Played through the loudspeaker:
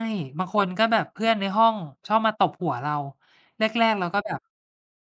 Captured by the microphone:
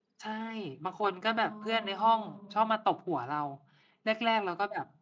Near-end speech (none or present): present